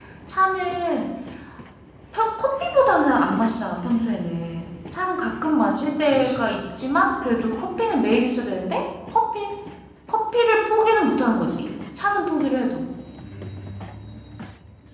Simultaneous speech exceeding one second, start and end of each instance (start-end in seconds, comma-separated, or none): none